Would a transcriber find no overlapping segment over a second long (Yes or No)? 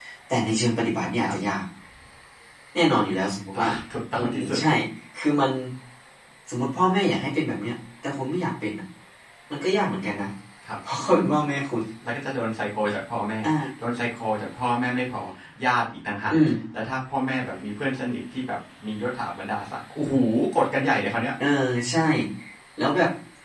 Yes